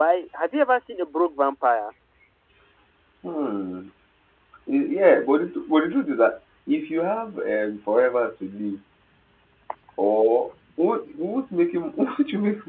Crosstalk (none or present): none